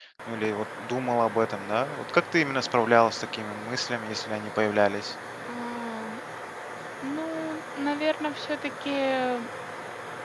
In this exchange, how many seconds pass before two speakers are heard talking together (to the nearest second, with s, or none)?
none